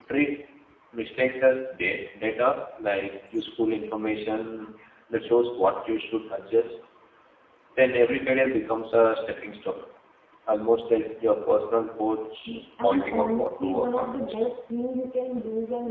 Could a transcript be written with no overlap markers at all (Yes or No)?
No